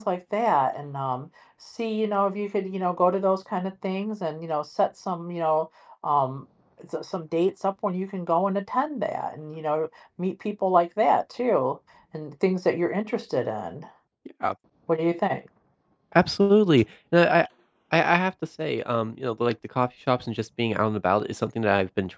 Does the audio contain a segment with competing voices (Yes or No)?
No